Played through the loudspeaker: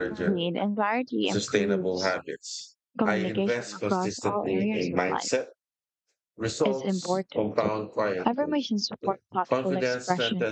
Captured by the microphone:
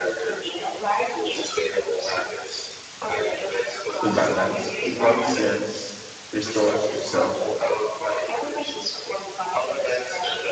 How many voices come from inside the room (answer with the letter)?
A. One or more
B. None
A